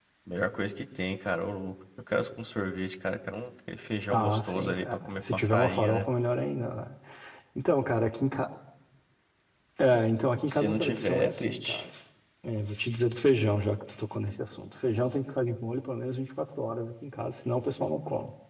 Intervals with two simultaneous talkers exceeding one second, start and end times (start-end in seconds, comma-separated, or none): 4.1-6.1, 10.5-11.8